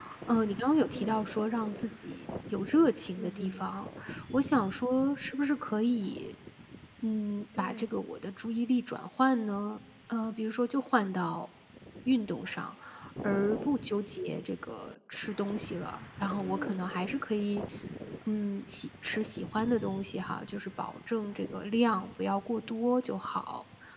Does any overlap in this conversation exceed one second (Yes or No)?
No